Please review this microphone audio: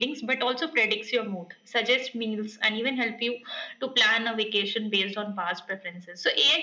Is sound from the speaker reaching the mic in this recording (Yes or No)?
Yes